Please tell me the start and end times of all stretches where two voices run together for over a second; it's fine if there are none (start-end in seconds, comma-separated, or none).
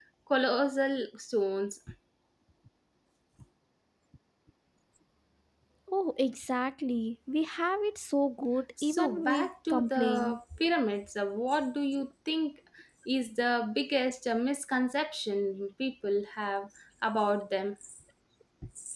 8.8-10.4